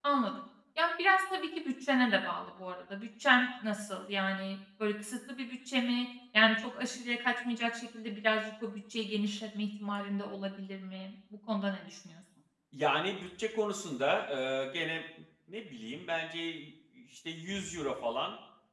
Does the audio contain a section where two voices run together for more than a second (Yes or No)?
No